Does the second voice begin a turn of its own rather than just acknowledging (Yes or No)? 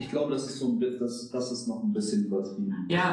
Yes